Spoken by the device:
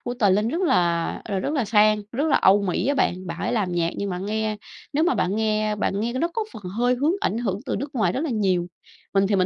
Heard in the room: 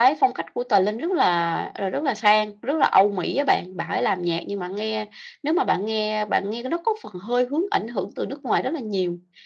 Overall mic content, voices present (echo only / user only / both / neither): echo only